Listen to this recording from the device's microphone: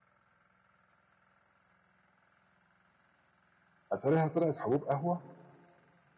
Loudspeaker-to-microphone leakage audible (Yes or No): No